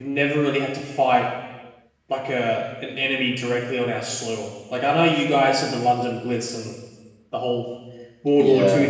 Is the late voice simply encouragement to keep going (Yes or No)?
Yes